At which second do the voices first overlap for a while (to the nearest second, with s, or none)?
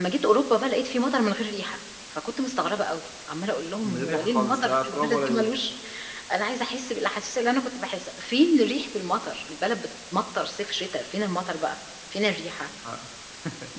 4 s